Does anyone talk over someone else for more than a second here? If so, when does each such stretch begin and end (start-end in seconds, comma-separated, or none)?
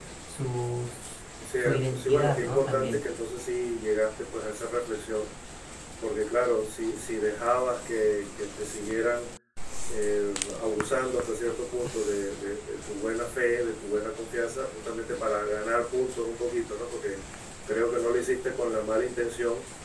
1.6-3.0